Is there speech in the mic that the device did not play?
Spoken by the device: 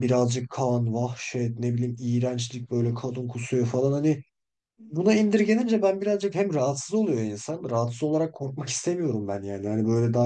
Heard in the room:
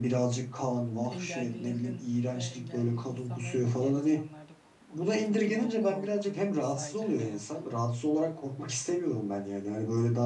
Yes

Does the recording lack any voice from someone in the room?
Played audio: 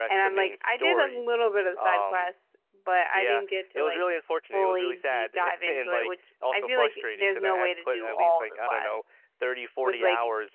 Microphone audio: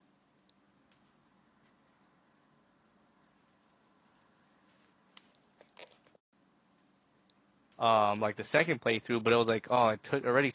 No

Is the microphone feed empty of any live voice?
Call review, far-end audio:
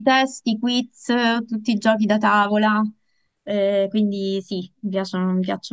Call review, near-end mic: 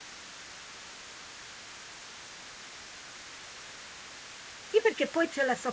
No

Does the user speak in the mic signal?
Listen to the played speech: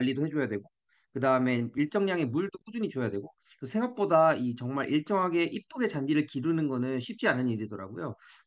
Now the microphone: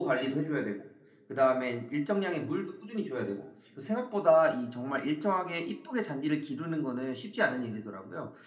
No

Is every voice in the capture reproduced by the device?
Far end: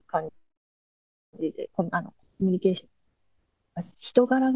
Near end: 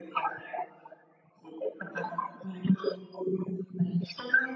Yes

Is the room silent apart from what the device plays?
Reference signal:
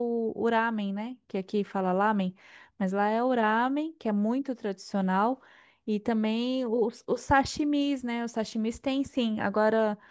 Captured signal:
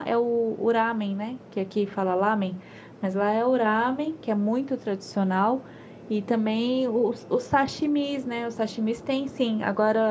Yes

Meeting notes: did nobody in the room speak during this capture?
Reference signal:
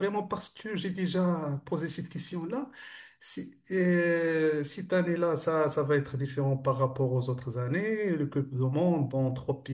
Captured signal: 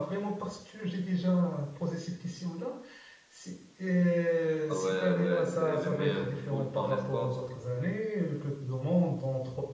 No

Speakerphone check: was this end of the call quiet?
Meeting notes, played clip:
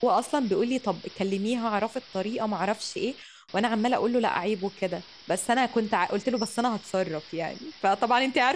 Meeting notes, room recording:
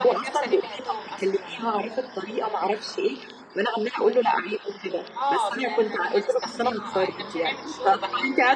No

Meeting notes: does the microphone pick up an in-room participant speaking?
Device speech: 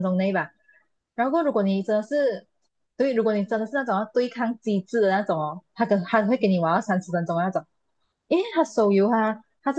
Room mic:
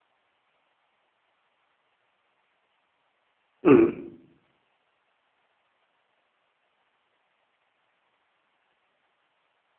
Yes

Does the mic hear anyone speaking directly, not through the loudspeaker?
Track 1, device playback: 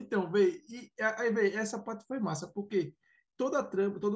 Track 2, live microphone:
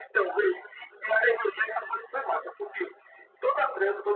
No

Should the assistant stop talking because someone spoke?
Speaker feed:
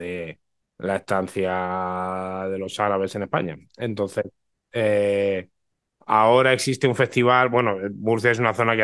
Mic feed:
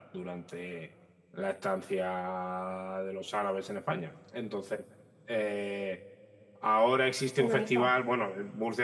Yes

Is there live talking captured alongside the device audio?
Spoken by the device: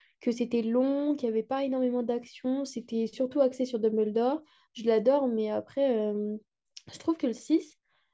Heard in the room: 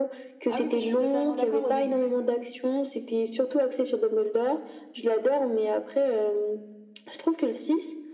Yes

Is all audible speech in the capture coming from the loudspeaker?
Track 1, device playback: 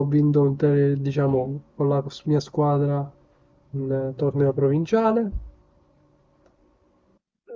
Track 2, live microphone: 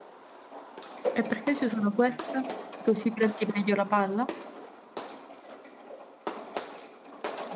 No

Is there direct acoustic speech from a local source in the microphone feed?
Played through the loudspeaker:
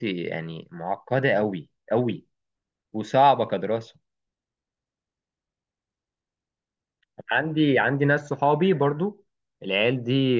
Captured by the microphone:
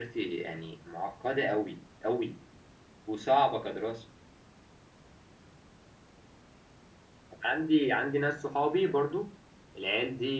No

